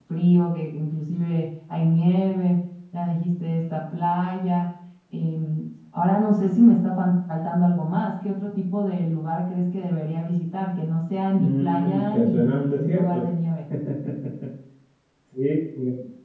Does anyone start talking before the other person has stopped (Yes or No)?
Yes